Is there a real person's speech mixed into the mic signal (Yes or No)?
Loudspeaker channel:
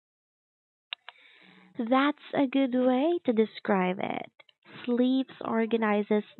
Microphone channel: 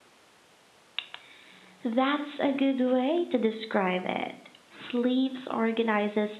No